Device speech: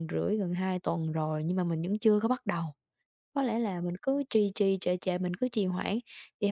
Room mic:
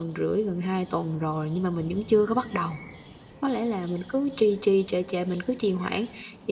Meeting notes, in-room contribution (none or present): none